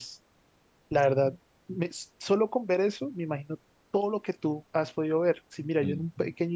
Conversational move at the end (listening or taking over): listening